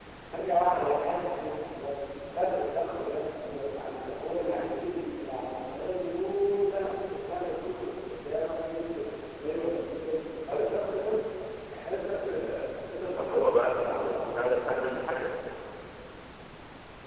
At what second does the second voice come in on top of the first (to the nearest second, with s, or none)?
13 s